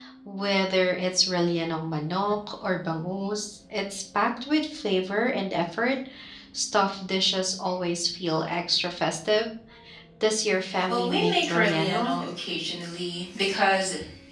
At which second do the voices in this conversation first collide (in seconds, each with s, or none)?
10.9 s